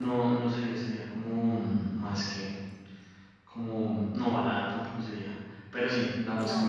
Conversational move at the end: listening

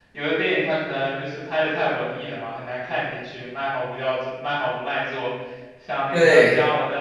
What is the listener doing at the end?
listening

